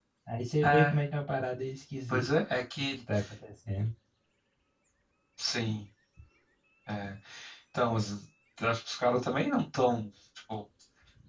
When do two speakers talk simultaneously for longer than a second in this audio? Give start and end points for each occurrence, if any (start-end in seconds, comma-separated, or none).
none